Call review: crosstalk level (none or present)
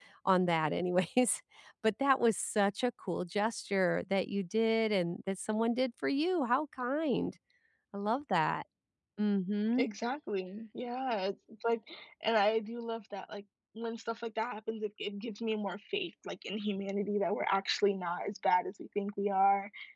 none